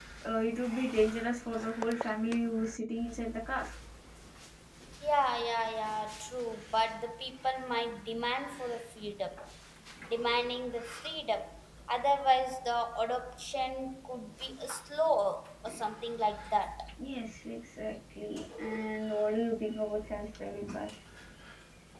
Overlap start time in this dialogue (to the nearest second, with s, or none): none